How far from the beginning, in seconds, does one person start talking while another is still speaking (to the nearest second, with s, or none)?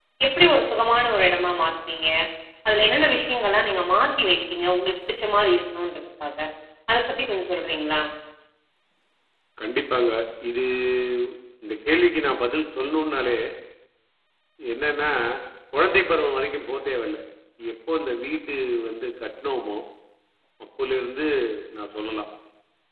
none